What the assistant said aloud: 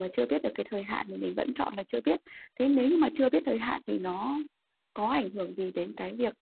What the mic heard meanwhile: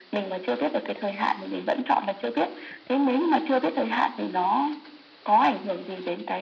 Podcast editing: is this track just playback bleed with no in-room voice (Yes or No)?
Yes